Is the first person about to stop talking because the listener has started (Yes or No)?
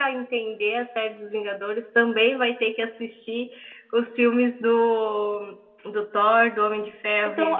Yes